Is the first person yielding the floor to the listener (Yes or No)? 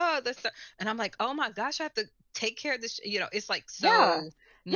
Yes